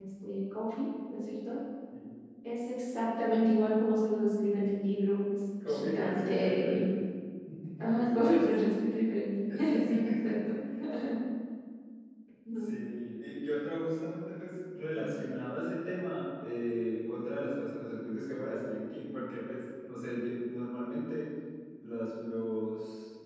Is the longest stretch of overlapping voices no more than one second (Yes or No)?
No